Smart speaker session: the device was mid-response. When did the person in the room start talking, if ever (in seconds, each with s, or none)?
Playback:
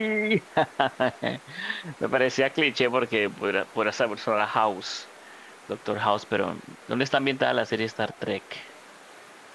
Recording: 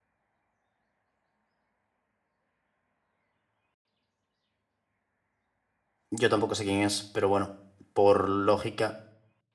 6.1 s